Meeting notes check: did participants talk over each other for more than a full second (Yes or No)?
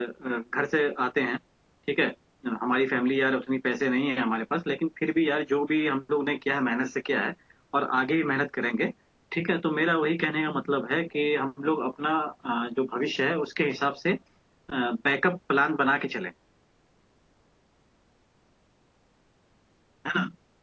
No